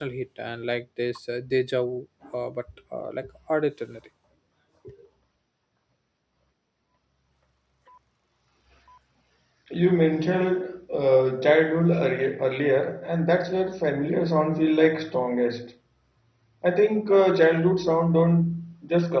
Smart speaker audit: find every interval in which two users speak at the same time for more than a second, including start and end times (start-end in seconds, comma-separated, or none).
none